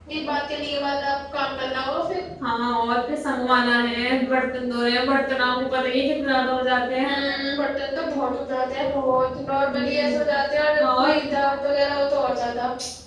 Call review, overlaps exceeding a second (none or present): none